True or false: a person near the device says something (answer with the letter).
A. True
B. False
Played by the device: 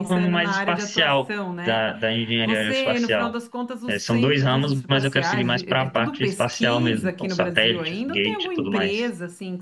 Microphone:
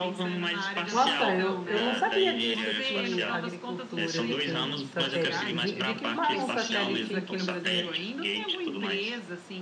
A